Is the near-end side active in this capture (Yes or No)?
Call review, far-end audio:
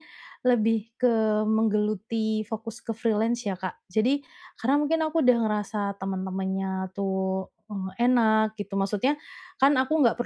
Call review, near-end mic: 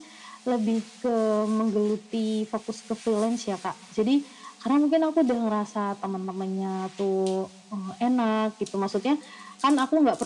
No